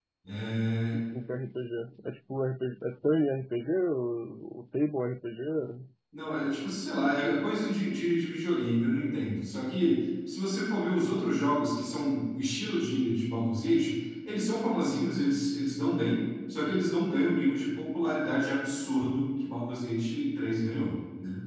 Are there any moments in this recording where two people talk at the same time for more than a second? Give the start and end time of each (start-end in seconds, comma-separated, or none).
none